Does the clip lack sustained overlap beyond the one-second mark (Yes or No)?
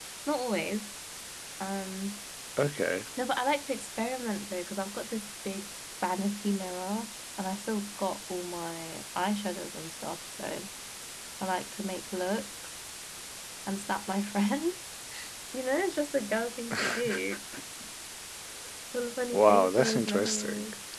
No